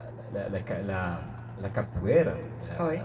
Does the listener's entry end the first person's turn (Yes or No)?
No